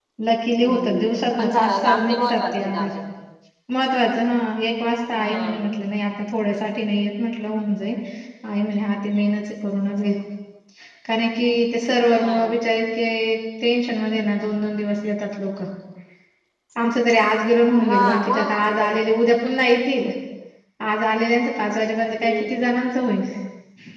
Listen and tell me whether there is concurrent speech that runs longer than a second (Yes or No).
Yes